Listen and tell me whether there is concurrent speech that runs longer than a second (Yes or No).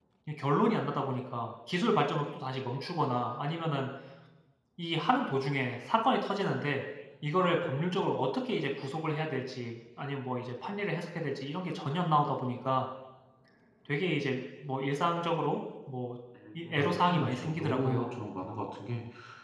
Yes